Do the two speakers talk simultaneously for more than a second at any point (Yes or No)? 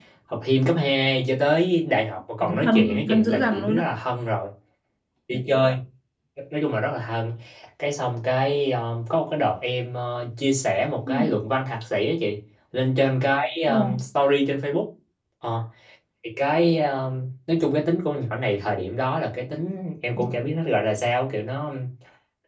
Yes